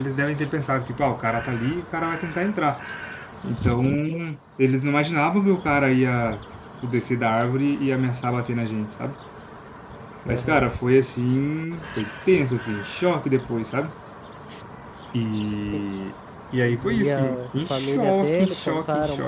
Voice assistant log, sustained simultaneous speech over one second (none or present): present